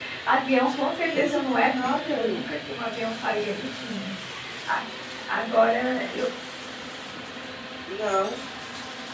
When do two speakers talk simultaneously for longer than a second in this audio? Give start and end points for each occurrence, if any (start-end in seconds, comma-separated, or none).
1.0-2.4